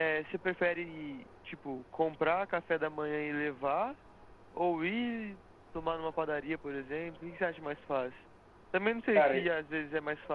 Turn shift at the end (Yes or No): No